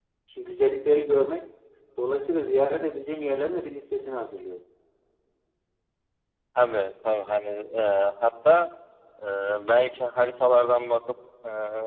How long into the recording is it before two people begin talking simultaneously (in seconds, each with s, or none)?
none